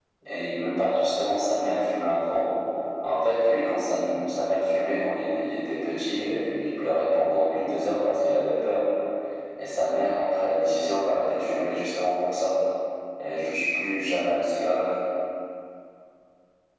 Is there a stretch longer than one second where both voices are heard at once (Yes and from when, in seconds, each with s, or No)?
No